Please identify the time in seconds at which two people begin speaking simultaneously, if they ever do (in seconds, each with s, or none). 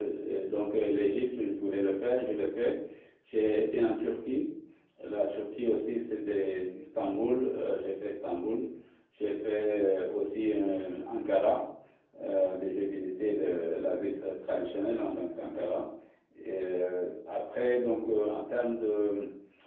none